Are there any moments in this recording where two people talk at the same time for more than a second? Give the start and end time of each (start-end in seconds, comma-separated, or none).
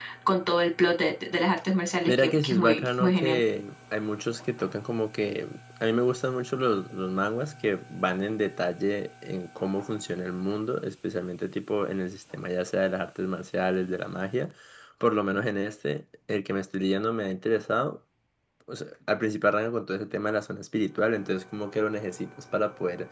2.1-3.4